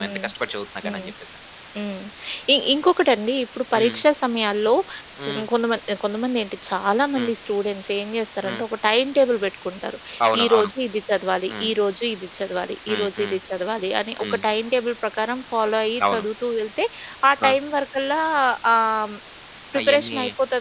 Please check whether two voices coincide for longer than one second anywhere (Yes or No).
No